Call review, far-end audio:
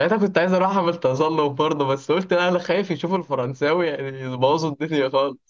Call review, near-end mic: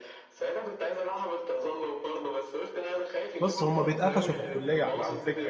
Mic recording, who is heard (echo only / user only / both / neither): both